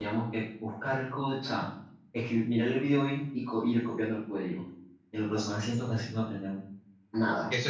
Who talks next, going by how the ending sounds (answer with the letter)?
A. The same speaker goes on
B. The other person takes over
B